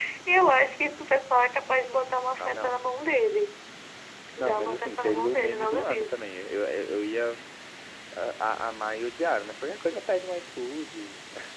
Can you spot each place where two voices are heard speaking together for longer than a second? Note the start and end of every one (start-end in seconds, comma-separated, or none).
4.4-6.2